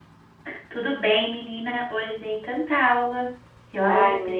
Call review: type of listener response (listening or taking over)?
taking over